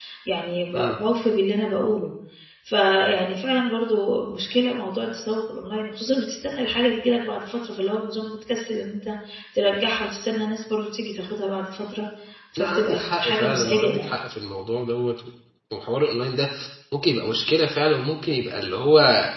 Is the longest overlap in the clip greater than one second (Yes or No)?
Yes